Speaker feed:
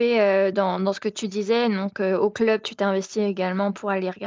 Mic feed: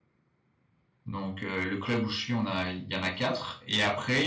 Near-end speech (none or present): present